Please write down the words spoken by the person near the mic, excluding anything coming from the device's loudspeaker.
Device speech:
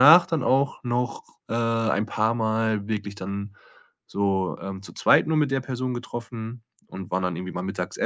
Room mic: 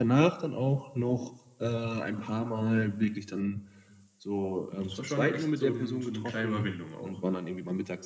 das war schon echt so 'n so 'ne kleine Überwindung auch.

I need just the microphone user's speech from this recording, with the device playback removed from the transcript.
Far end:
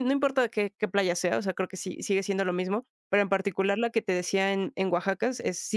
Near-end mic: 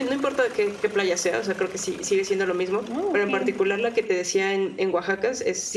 Ah, okey.

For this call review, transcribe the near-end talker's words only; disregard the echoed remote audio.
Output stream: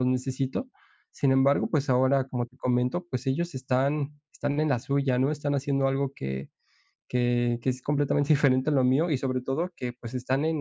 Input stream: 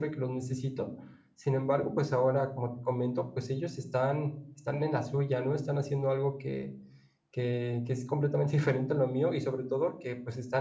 none

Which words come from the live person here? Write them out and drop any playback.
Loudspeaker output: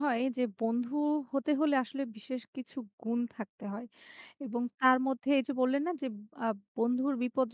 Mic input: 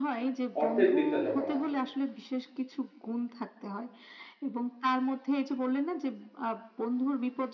অর্থের দিকটা যখন আসে।

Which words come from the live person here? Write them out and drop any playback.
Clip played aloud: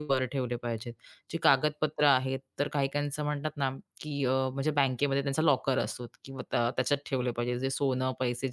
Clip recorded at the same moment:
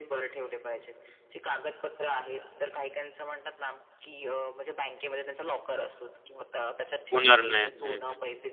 होणार नाही. हं, हं.

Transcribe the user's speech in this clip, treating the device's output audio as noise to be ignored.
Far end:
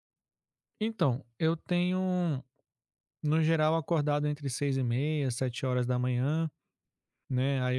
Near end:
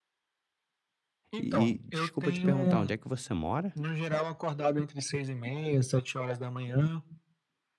E e desculpa te perguntar, onde é que você mora?

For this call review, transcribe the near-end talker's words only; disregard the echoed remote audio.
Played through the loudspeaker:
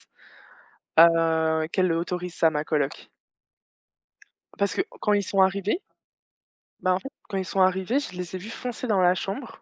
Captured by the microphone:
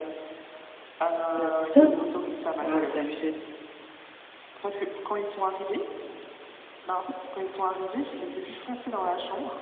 Bah, c'est ça. Ouais, c'est abusé.

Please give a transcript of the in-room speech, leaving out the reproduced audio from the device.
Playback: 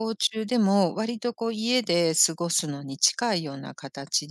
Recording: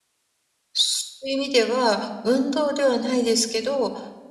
そういう意味では、運動ではないですけど、

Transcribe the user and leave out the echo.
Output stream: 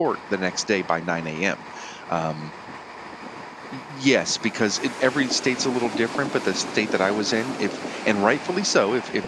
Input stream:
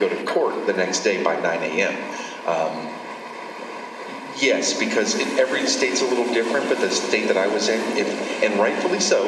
none

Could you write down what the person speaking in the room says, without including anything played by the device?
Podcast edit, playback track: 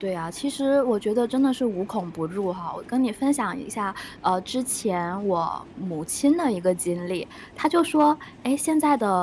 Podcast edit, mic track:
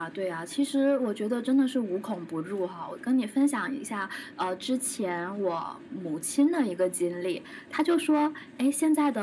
none

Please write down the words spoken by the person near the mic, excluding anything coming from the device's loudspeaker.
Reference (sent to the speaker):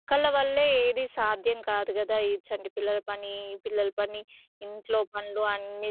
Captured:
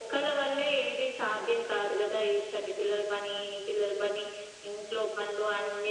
none

